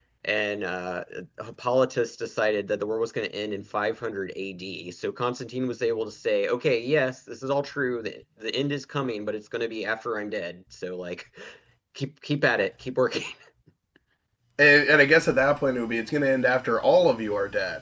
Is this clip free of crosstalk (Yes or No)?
Yes